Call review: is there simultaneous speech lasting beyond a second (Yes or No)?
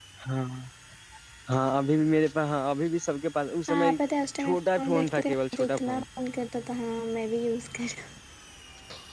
Yes